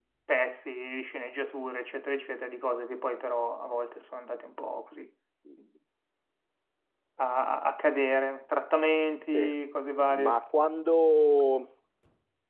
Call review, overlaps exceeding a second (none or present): none